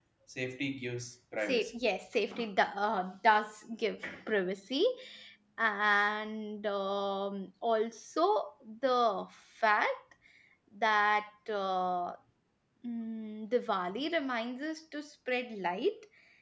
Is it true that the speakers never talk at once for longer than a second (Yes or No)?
Yes